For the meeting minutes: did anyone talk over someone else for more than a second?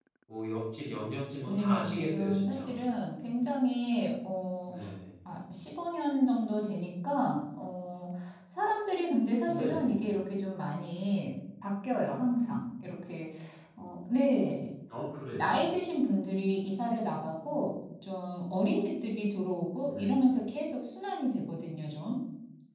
Yes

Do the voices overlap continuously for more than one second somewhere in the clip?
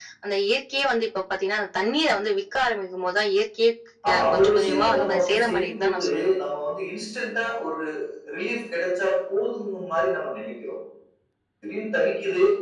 Yes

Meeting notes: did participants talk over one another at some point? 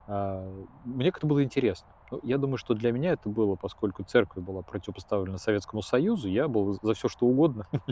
No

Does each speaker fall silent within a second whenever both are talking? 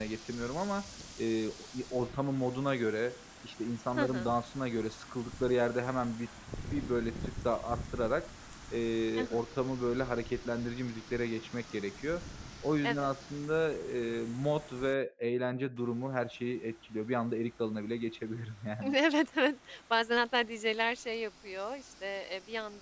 Yes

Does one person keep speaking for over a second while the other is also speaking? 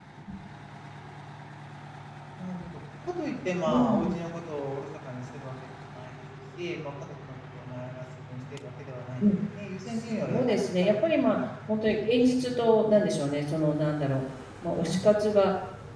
Yes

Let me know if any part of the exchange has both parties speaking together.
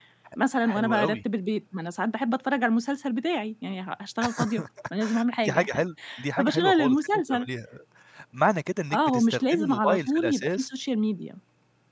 Yes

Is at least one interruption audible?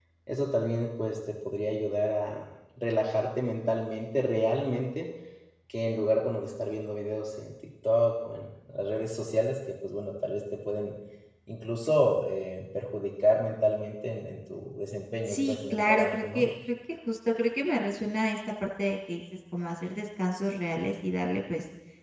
Yes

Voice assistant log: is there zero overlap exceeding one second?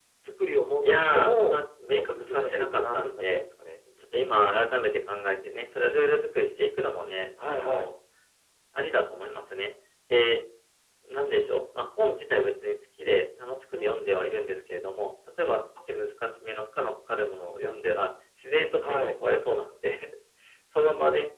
No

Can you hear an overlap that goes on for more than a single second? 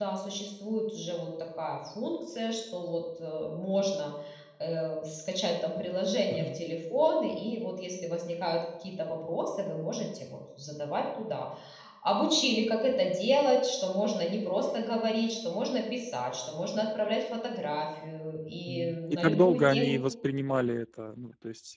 Yes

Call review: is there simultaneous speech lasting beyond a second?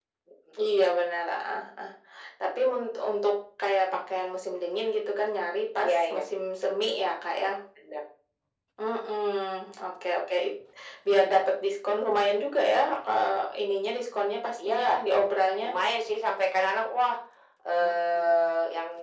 No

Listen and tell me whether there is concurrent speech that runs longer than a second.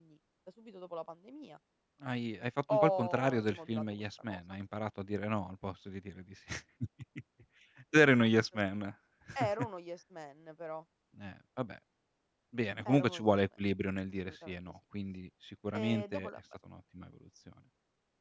Yes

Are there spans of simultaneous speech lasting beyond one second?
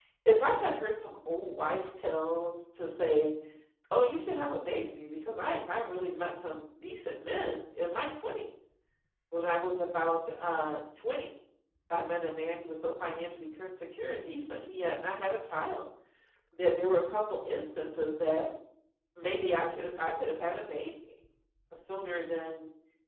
No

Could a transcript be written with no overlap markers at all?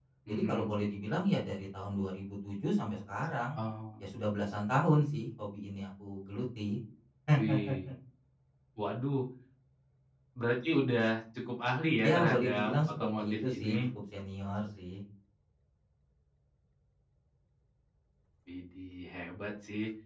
No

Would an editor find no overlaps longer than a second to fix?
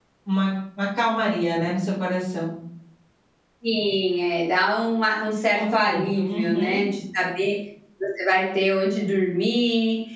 No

